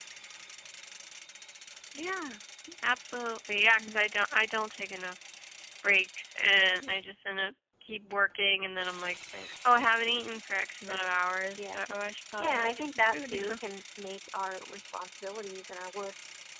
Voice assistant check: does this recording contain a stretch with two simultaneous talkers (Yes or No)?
Yes